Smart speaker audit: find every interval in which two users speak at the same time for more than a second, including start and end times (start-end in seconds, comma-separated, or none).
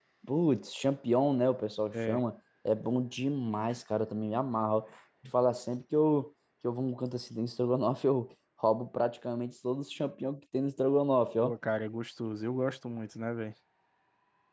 none